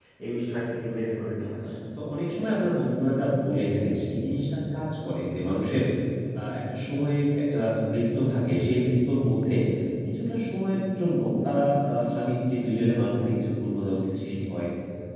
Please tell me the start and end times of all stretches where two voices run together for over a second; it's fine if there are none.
none

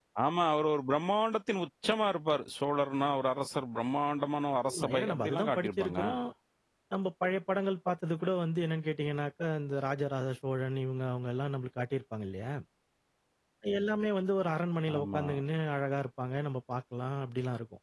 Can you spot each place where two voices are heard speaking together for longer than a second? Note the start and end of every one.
4.6-6.0

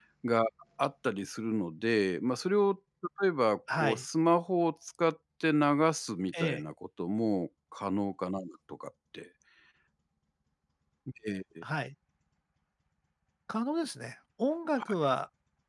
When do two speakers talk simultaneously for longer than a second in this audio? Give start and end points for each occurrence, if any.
none

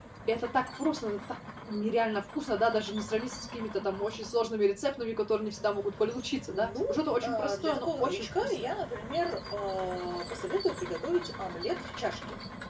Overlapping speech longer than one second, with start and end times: 7.2-8.7

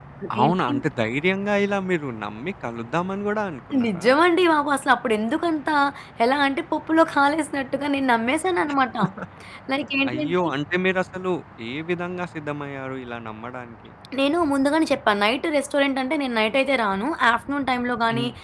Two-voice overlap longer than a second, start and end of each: none

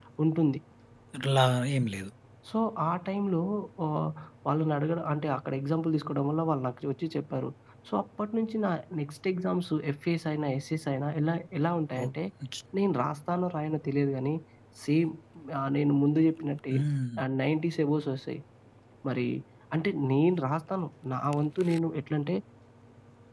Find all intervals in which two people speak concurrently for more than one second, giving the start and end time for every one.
none

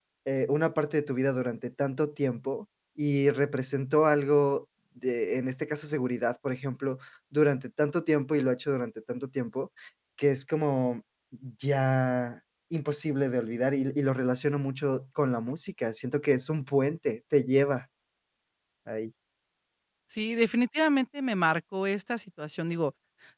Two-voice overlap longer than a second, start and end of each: none

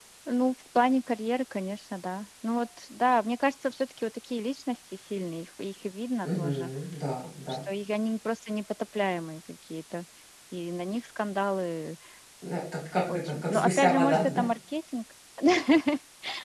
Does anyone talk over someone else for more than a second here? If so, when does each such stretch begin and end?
13.1-14.5

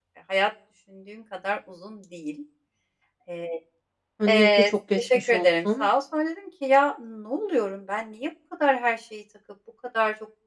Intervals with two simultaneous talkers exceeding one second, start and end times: 4.3-5.9

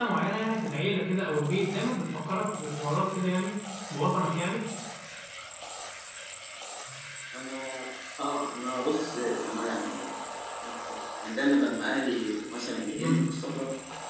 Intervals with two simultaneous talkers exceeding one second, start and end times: none

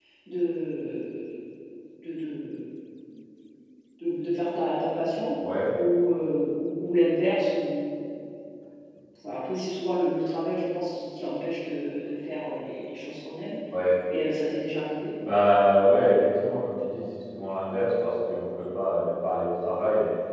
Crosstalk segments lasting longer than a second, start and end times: none

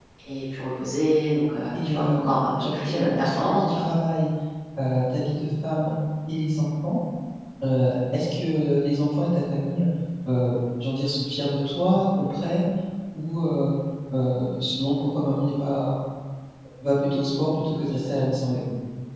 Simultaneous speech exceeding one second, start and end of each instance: 2.6-3.8

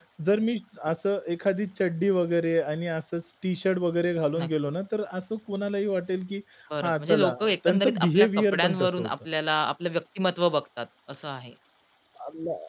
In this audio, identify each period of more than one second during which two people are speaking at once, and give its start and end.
6.8-9.1

